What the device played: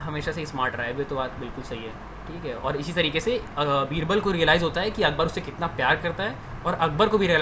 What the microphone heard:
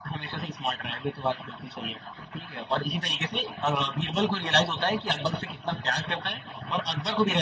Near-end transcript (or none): none